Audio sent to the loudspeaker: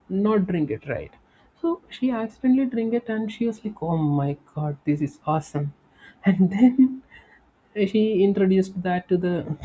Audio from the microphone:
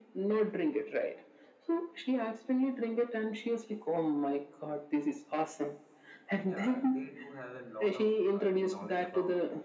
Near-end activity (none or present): present